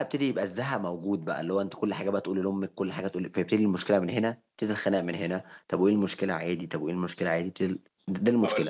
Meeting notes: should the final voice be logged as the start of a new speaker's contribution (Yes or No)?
Yes